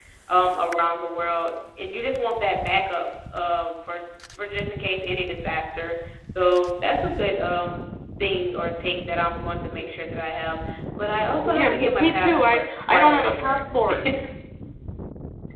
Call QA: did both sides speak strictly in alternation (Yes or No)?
No